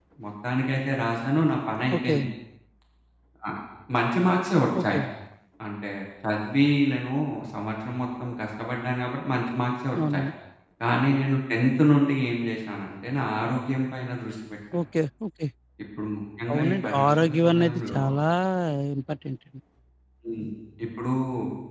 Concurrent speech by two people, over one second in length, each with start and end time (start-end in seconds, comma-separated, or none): 16.5-18.0